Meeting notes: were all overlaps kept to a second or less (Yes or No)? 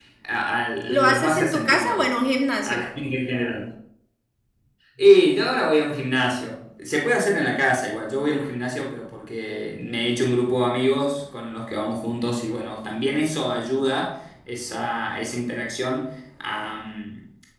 No